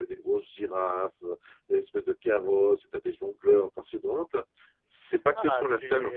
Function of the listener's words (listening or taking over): taking over